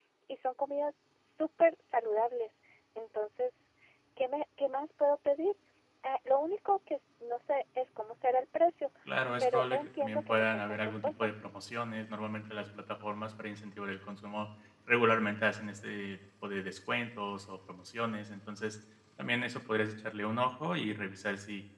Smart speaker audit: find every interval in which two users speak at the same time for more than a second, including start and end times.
9.4-11.3

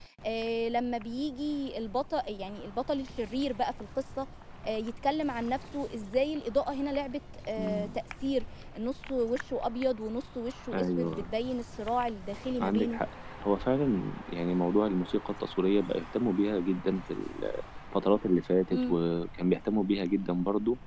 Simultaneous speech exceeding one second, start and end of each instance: none

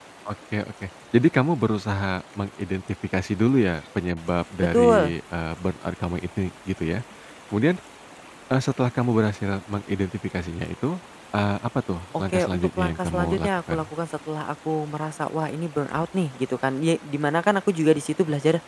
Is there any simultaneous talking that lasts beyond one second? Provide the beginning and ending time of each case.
12.2-13.8

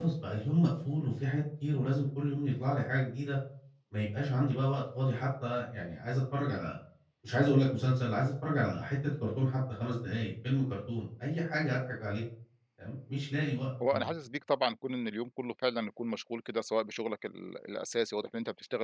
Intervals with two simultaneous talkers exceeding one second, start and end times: none

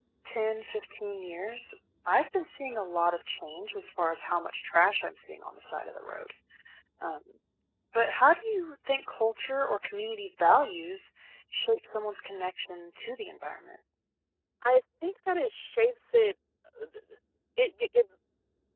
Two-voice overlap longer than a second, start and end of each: none

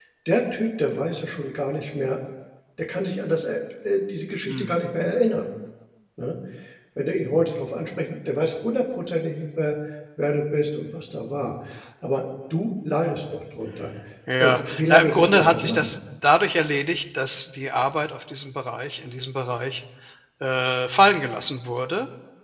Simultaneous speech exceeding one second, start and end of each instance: 14.4-15.9

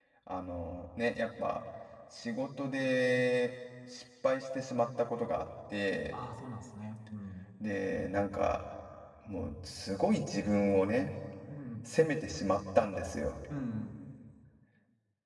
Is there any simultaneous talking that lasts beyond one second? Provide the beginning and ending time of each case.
none

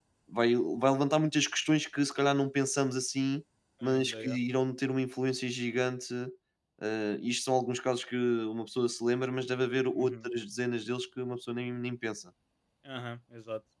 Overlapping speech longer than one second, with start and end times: none

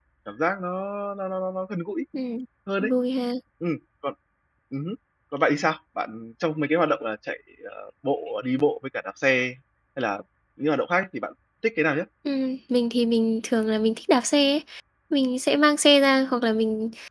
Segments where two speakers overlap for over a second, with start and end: none

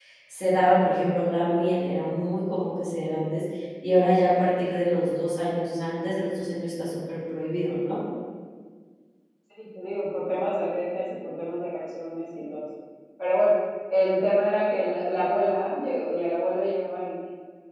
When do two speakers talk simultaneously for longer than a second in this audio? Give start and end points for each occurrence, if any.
none

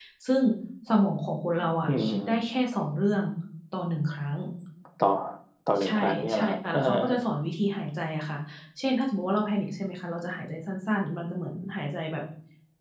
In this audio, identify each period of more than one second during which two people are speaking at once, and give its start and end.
5.8-7.2

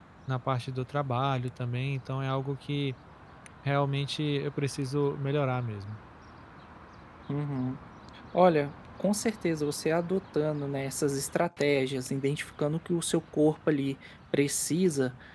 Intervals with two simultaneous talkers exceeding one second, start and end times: none

